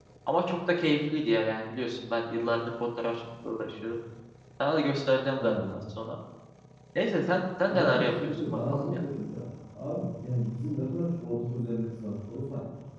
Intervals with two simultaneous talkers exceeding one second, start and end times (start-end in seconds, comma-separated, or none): 7.7-9.0